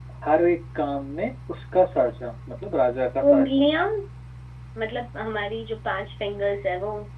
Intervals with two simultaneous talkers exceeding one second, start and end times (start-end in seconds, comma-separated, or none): none